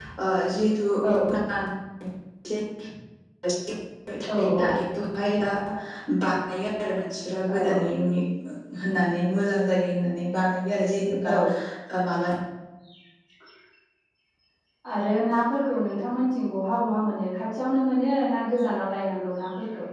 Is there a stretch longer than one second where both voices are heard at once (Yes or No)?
No